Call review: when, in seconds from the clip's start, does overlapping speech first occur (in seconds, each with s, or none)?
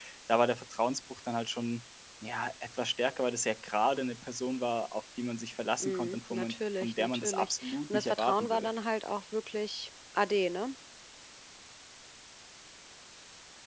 5.8 s